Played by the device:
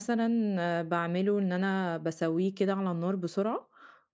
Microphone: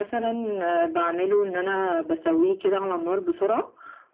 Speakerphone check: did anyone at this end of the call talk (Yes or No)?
No